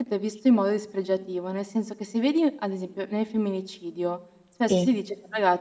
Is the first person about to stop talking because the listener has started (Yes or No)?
No